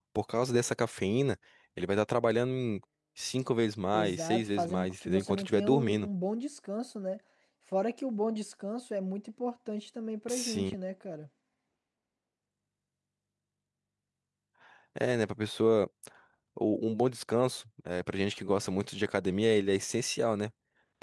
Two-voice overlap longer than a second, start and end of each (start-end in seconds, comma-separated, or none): 3.9-6.1